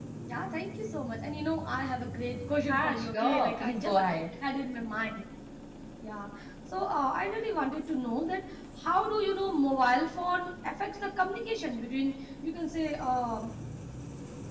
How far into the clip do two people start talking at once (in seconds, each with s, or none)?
2.7 s